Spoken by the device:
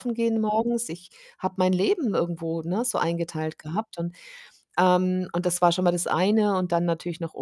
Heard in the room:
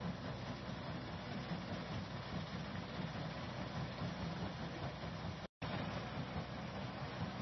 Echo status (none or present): none